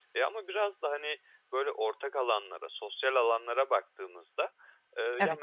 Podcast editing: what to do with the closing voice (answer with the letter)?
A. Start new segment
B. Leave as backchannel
B